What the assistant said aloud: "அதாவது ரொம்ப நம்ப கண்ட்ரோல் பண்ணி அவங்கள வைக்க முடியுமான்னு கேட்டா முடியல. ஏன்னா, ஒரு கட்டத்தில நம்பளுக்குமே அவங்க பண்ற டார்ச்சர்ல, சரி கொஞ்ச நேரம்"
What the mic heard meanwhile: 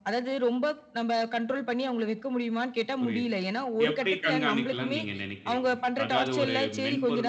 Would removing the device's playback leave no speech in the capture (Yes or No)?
No